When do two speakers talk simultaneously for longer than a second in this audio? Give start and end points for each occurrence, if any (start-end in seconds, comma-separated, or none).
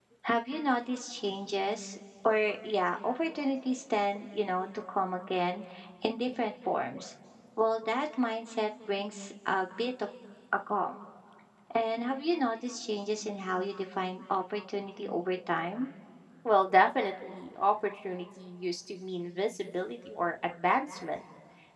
none